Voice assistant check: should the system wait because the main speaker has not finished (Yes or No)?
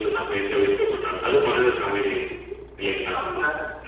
No